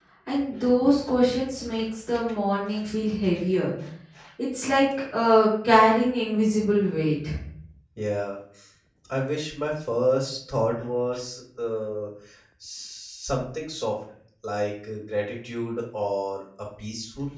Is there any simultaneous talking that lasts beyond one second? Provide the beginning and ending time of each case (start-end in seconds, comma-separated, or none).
none